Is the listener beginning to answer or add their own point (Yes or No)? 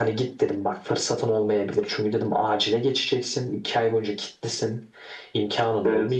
No